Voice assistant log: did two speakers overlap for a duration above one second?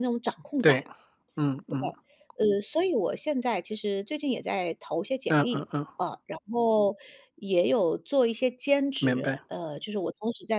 No

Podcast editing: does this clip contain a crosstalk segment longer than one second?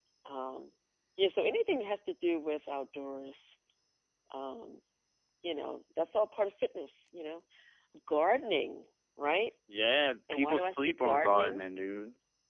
Yes, from 10.3 s

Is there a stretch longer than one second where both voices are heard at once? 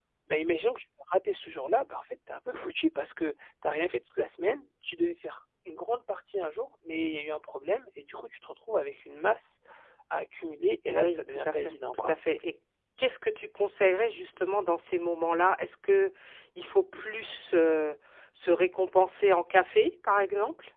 Yes, from 10.9 s

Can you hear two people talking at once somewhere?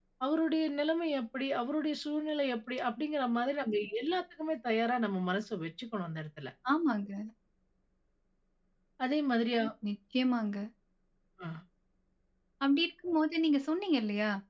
No

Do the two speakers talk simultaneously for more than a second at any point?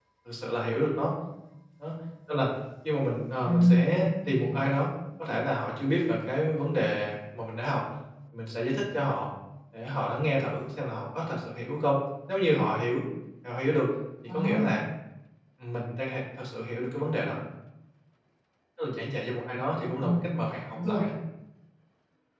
Yes, from 3.4 s

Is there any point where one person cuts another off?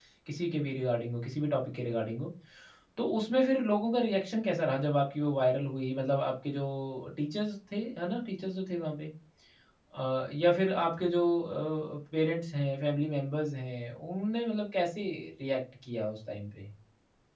No

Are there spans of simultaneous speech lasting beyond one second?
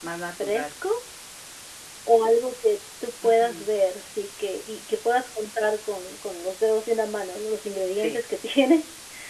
No

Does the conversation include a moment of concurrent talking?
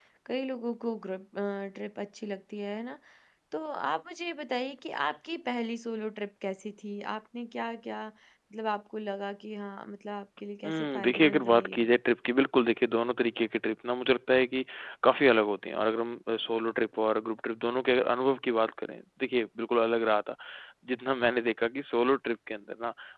Yes, from 10.6 s

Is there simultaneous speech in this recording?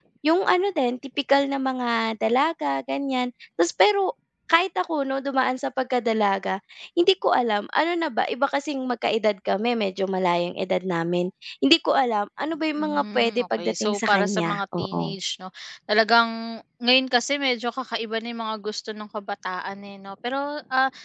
Yes, from 12.8 s

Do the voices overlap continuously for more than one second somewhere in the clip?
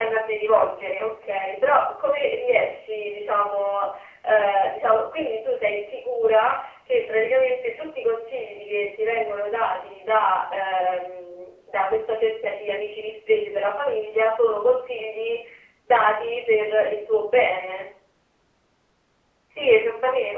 No

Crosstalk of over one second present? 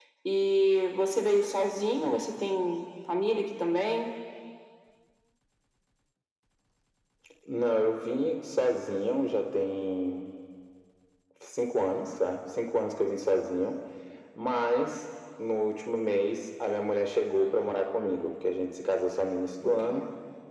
No

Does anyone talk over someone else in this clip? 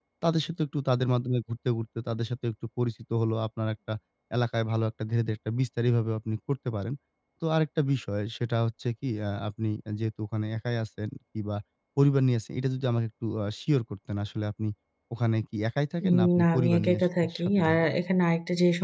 Yes, from 16.0 s

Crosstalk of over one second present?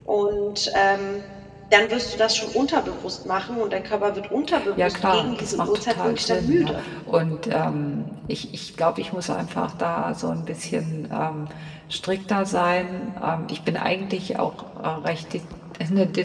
Yes, from 4.8 s

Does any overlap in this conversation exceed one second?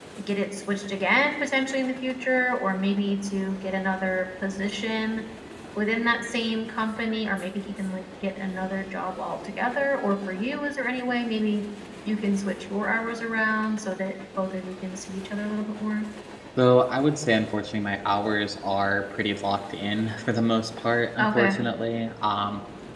No

